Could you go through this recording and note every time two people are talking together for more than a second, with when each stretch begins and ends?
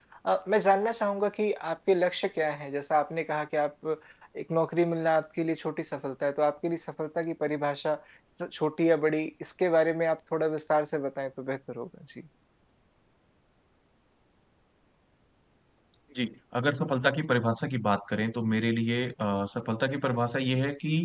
none

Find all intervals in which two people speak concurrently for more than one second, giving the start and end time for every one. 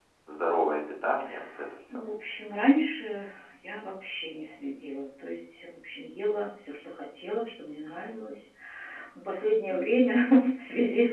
none

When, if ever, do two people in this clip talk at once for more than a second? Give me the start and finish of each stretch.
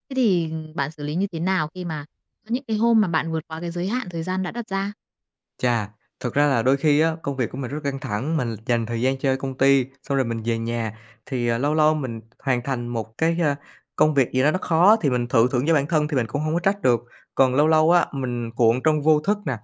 none

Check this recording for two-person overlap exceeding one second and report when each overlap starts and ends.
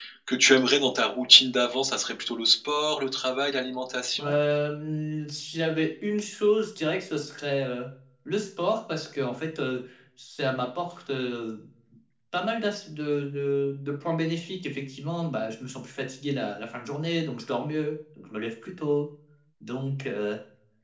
none

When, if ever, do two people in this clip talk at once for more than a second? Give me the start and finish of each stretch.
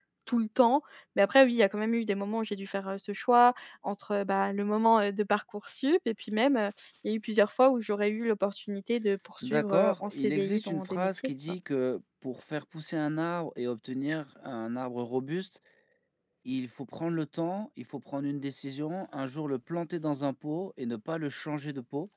9.4-11.3

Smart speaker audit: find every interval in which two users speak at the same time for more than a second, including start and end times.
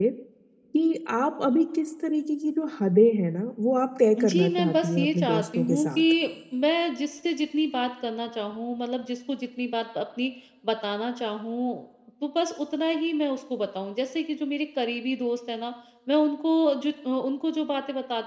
4.2-6.0

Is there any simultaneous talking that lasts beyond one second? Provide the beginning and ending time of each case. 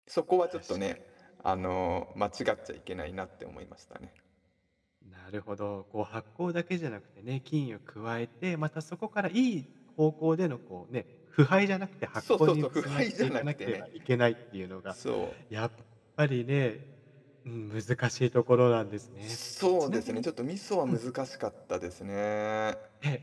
12.2-13.8

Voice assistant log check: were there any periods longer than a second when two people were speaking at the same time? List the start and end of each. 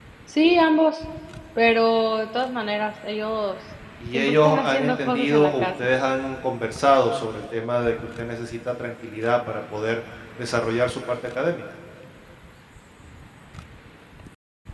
4.1-5.7

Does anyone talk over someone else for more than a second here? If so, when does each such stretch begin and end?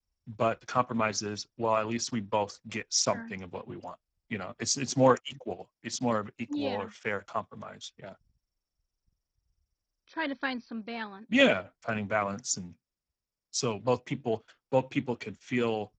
none

